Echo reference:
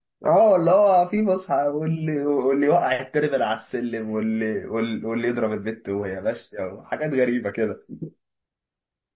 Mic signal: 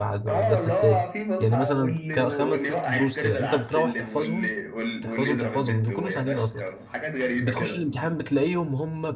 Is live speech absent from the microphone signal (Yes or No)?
No